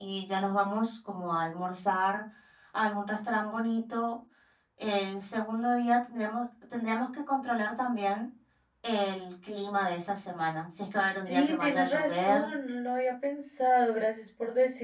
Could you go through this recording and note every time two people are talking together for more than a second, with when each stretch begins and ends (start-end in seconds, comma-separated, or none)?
11.2-12.5